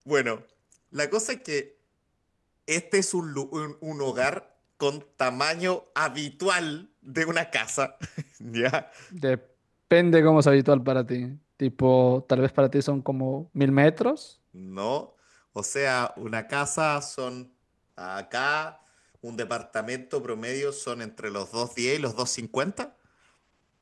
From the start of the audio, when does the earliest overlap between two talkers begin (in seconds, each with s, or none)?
none